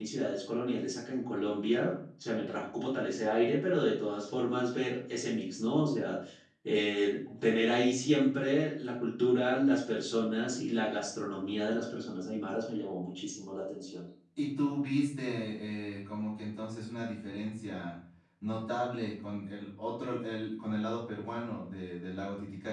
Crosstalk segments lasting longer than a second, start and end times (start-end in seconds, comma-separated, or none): none